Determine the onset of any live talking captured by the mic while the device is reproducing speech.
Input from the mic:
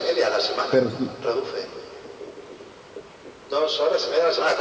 0.7 s

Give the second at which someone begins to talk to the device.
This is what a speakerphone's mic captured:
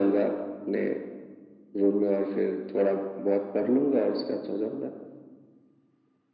none

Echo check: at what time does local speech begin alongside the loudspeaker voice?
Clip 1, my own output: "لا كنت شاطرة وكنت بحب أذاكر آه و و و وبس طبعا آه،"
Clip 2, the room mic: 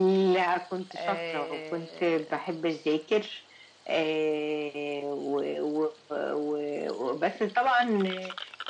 0.9 s

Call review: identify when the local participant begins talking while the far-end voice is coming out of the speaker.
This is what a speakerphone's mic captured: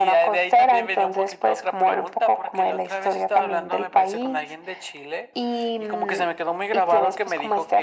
none

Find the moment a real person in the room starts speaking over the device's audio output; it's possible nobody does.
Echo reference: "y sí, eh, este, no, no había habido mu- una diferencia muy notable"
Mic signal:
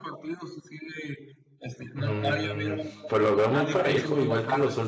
1.9 s

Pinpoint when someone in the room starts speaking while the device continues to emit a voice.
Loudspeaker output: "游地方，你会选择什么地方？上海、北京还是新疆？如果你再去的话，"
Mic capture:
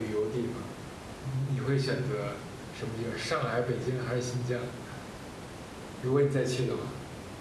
none

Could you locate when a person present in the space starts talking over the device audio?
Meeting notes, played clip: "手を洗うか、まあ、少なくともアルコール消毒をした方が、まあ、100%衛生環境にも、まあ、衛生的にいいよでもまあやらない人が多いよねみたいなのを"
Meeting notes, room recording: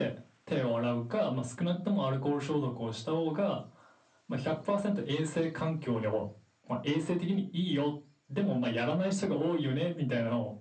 none

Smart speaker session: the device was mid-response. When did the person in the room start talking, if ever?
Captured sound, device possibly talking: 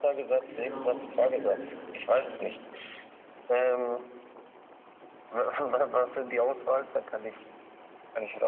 0.3 s

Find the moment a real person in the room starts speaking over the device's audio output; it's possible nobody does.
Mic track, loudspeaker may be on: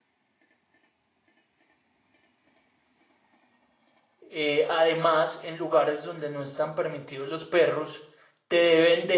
4.2 s

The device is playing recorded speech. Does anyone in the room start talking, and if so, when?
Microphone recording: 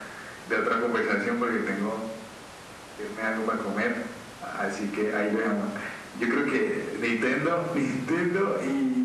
none

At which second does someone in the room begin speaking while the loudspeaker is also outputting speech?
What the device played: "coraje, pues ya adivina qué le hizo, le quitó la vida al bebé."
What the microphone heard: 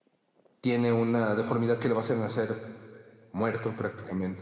0.6 s

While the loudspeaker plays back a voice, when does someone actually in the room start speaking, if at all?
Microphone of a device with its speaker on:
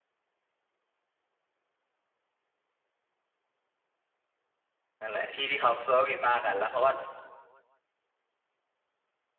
5.0 s

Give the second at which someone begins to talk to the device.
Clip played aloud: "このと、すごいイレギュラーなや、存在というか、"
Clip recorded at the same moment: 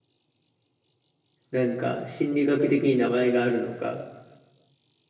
1.5 s

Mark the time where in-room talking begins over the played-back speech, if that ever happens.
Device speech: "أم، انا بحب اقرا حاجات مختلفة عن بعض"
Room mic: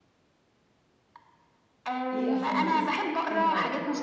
2.1 s

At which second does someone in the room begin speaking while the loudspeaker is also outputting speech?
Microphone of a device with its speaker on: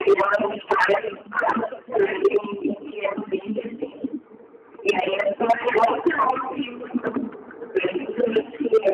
none

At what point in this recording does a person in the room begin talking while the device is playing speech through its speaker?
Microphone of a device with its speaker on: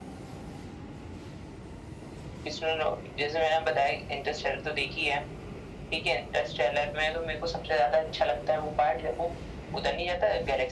none

